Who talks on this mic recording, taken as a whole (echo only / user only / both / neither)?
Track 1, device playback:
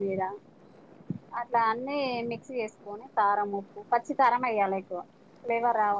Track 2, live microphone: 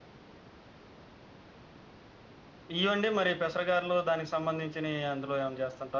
user only